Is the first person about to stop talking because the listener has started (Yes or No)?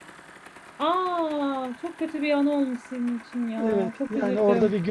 Yes